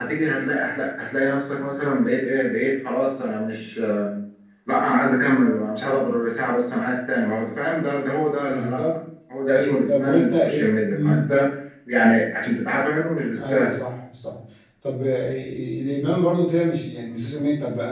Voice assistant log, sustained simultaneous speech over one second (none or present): present